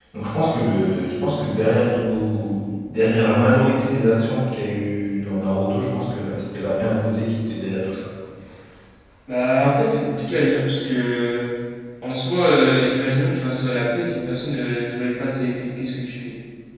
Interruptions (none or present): none